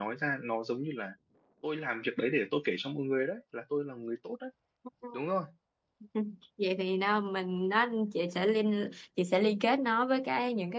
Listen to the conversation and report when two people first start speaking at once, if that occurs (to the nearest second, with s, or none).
none